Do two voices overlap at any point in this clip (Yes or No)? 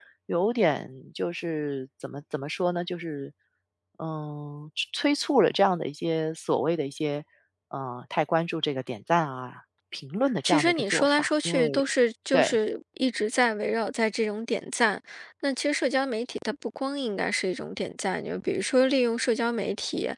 Yes